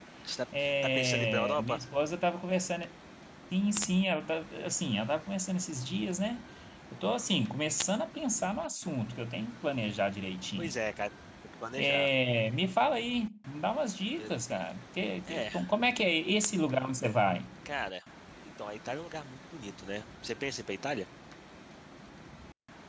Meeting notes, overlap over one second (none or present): present